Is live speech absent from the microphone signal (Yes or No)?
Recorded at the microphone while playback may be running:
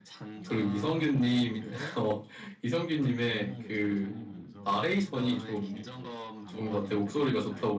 No